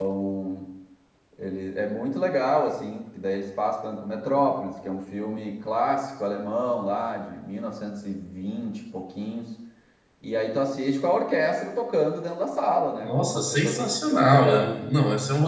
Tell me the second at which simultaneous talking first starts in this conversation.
13.0 s

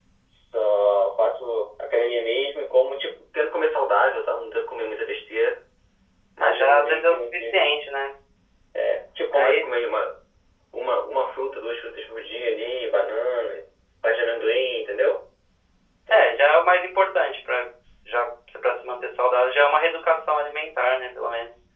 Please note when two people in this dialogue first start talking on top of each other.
6.4 s

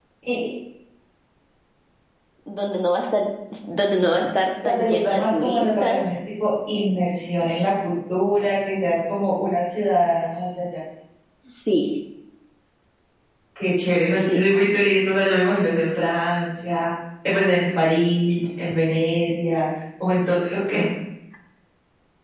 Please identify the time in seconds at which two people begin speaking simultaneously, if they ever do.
4.7 s

